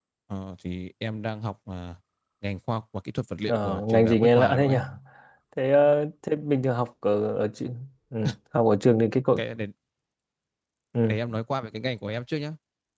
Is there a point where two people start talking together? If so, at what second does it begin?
3.5 s

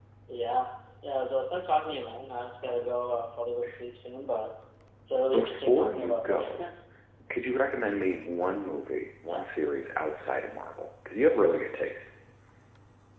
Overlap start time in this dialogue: 5.3 s

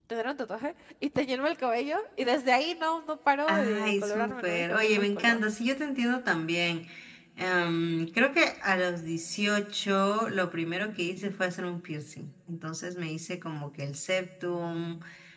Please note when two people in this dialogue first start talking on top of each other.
3.5 s

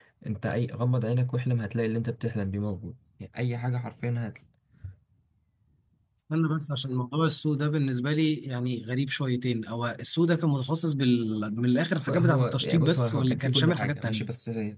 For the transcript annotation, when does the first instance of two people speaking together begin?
12.1 s

